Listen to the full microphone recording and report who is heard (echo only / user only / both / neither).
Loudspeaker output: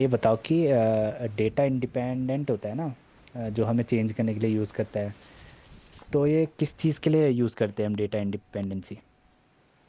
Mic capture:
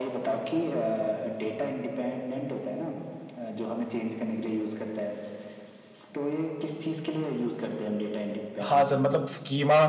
both